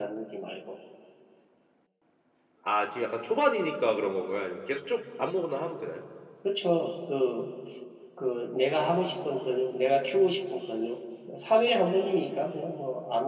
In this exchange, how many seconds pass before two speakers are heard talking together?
none

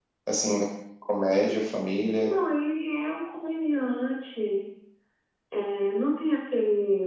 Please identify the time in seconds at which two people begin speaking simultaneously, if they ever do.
none

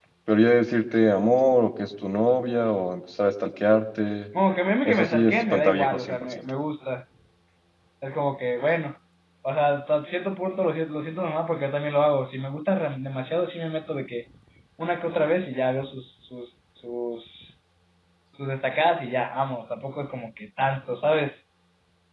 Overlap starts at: 4.8 s

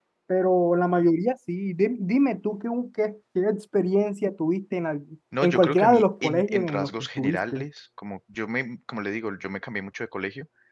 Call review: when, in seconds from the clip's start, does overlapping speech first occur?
5.3 s

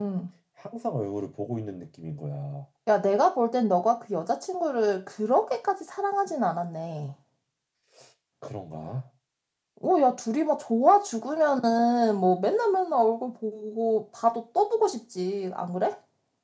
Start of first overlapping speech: none

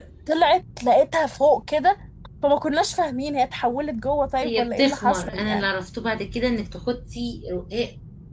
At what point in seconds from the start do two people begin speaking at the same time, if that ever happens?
4.4 s

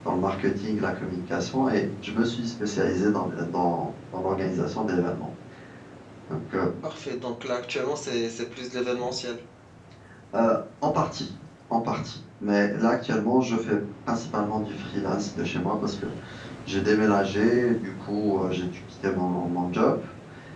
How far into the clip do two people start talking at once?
none

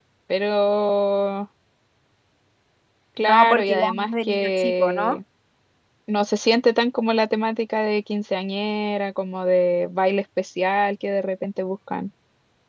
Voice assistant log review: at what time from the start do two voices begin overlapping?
3.2 s

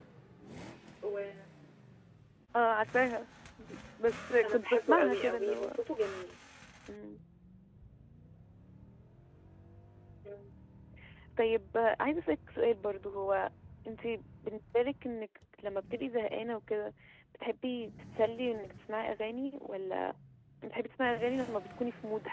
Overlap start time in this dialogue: 4.4 s

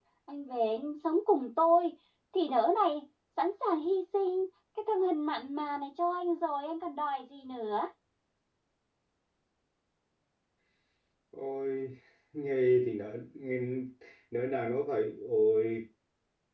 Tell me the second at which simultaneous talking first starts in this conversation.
none

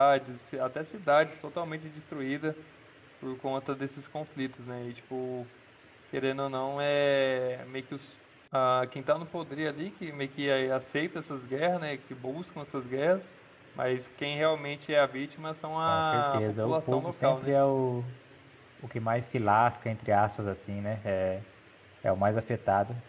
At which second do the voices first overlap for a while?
15.9 s

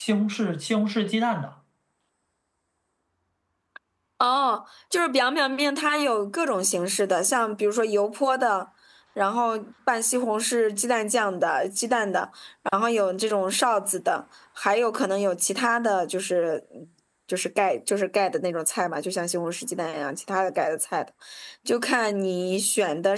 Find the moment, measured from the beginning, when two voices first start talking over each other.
none

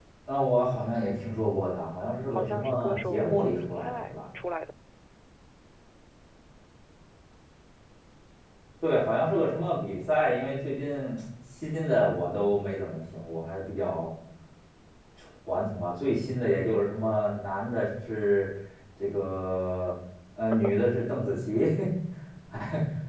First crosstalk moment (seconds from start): 2.3 s

